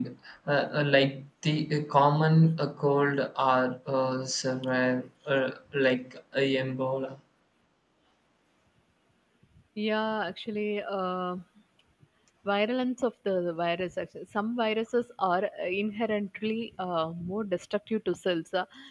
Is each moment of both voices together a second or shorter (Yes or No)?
Yes